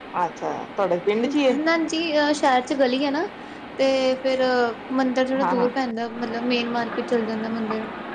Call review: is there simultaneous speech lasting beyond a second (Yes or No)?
No